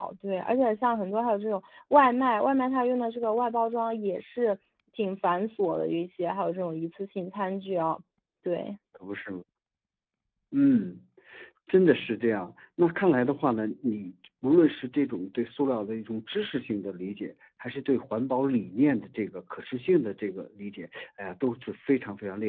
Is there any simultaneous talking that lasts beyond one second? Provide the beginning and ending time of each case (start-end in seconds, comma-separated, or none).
none